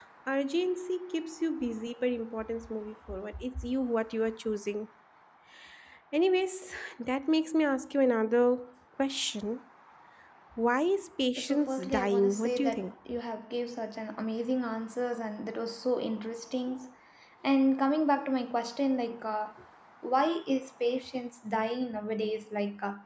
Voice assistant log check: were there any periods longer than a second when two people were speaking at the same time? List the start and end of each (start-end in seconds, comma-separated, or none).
11.4-12.9